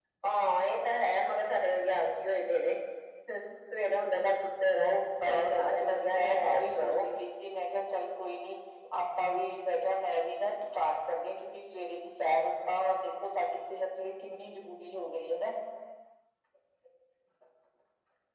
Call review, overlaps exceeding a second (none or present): present